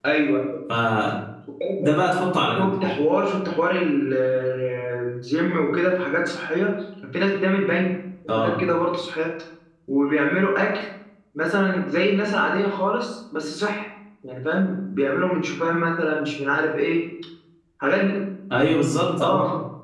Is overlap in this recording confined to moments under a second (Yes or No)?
Yes